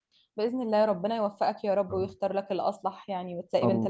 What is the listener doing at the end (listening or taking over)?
taking over